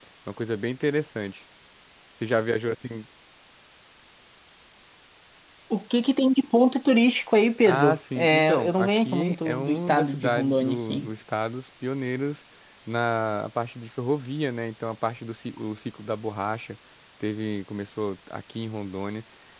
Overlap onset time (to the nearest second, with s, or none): 8 s